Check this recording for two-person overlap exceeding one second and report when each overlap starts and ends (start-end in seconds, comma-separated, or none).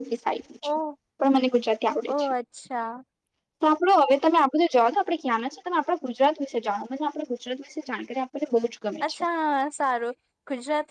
none